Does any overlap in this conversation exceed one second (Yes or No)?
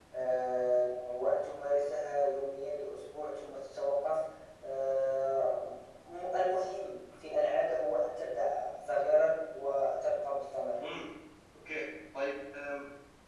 No